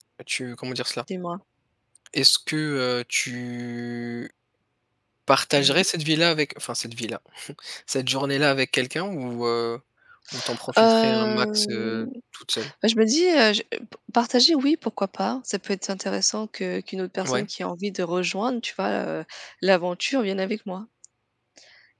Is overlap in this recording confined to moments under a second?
No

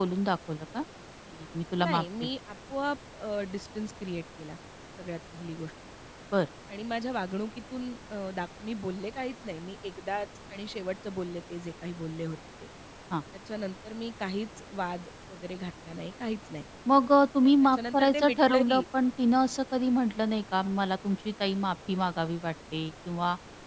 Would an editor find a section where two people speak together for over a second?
Yes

